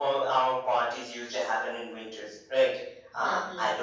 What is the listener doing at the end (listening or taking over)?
listening